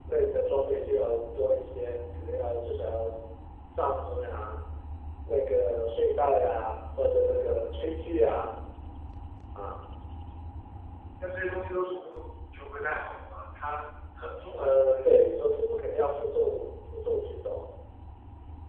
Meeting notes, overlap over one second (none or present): none